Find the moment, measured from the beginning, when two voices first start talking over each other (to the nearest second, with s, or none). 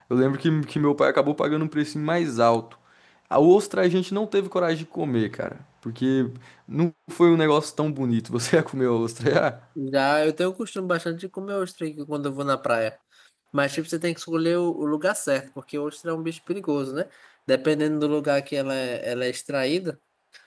none